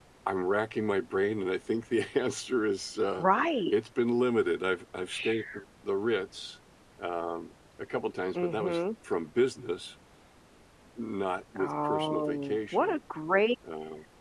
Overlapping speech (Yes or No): Yes